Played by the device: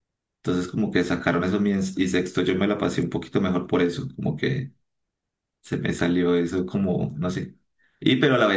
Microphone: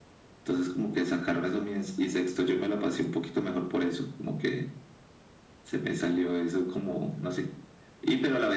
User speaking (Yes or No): No